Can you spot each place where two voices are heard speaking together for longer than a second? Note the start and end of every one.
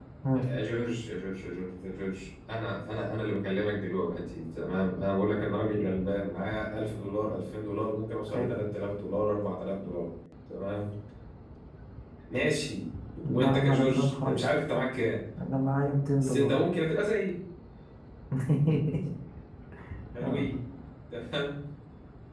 13.2-14.5

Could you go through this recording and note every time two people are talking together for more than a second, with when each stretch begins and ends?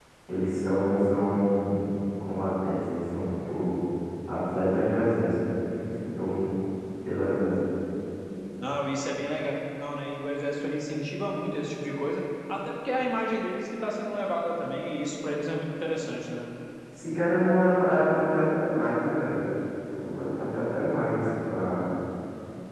none

